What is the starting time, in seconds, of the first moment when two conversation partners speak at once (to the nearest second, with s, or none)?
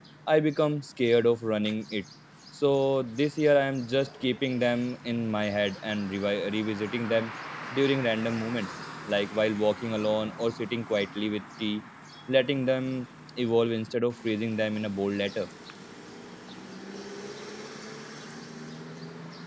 none